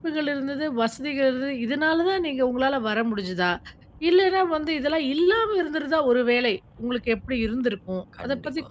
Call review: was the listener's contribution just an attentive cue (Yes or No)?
Yes